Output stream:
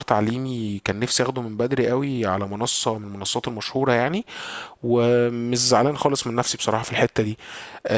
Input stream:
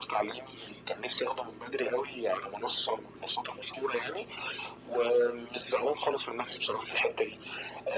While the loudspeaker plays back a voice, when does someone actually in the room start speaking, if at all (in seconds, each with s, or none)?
none